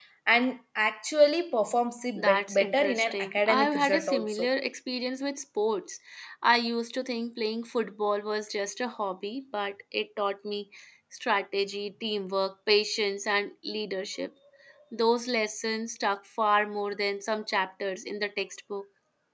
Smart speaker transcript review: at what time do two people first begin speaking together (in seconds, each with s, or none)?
2.2 s